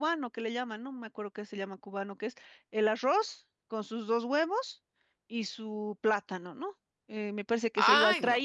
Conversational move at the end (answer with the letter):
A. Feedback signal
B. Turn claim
A